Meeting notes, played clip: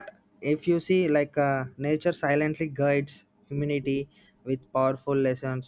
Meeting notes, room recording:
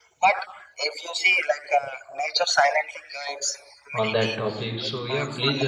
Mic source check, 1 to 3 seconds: echo only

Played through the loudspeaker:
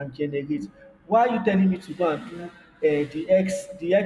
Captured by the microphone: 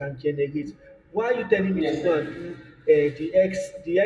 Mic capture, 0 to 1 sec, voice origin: echo only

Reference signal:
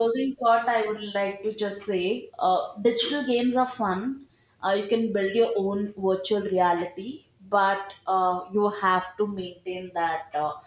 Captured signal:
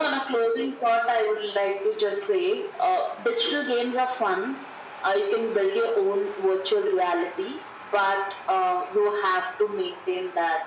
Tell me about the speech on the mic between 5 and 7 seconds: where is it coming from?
echo only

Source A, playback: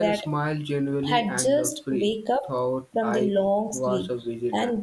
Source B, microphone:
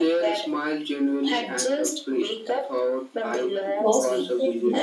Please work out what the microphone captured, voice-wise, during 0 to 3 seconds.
echo only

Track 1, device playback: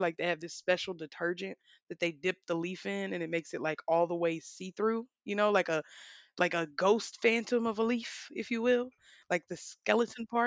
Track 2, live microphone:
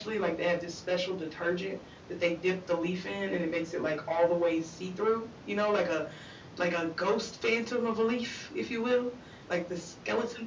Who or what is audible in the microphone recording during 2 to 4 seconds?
echo only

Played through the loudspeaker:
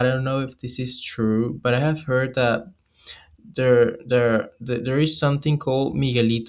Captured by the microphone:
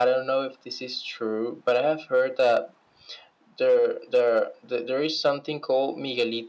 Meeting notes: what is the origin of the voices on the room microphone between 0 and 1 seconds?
echo only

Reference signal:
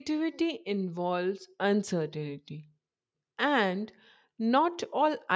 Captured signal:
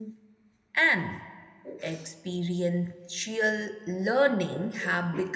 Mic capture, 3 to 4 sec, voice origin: user only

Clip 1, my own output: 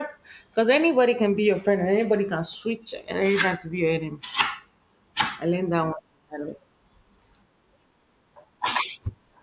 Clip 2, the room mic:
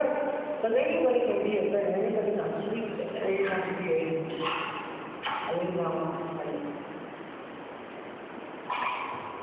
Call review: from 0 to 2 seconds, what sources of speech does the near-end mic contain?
echo only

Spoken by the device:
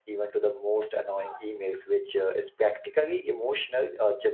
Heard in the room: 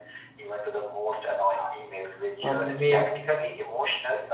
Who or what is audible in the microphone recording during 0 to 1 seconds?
echo only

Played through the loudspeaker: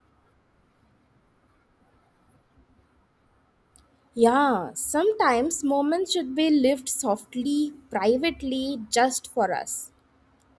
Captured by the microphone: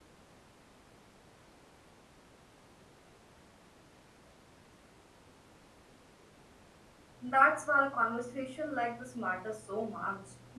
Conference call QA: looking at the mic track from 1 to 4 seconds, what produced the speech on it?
neither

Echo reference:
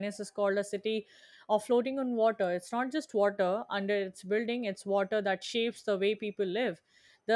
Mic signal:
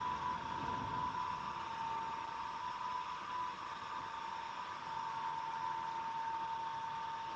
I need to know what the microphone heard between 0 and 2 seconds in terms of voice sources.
neither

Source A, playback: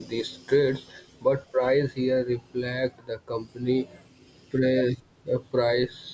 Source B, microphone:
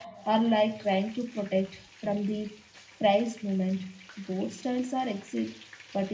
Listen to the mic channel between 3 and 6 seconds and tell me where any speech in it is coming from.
user only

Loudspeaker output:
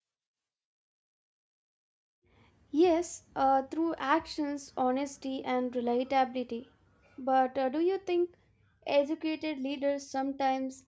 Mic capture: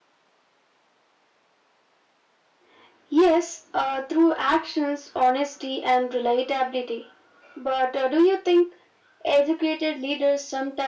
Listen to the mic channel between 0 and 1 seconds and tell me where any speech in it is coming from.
neither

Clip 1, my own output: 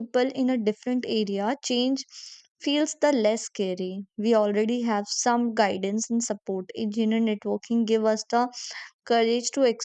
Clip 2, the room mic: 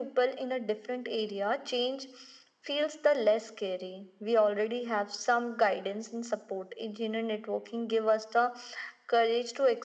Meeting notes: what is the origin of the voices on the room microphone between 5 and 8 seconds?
echo only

